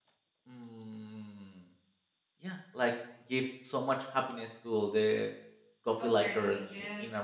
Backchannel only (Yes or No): No